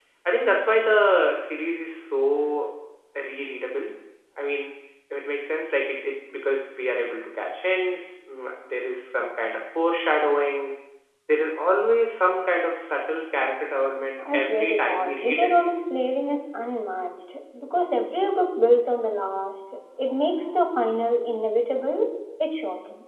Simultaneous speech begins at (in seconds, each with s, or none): 14.2 s